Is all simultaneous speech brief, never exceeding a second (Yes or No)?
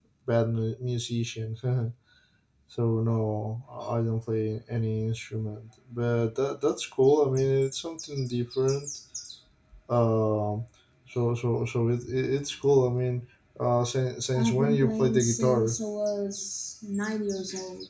No